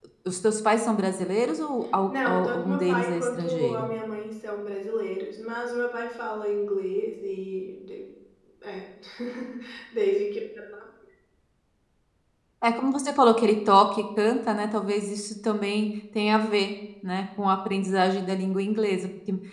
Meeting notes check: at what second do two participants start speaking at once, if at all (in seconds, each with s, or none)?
2.1 s